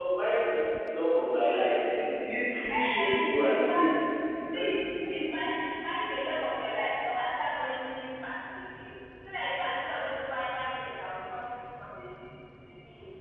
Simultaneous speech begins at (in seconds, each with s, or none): 2.7 s